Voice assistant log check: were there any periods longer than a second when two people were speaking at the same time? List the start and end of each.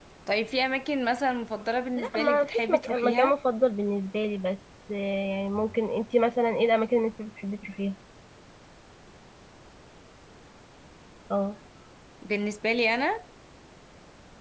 2.0-3.4

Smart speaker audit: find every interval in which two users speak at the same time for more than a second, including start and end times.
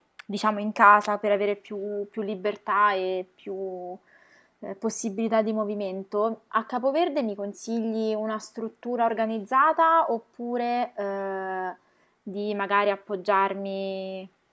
none

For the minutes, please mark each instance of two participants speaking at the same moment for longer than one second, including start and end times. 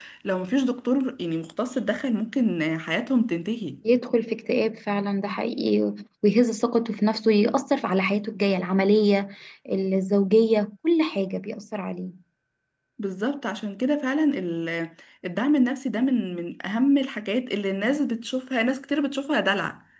none

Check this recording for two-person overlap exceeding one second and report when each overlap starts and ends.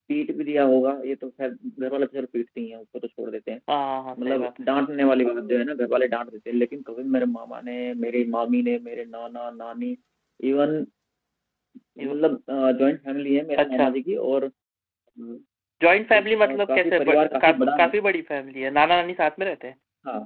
16.2-17.9

